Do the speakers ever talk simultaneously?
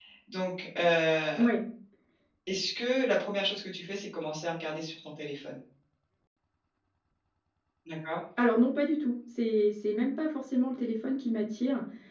No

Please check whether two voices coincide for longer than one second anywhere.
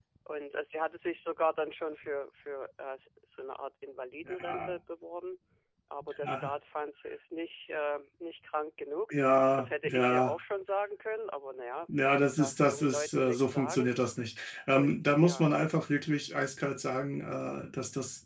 Yes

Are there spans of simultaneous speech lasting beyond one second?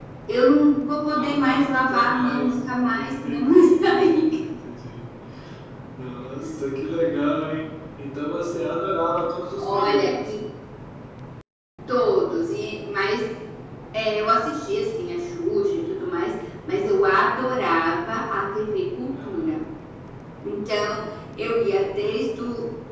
Yes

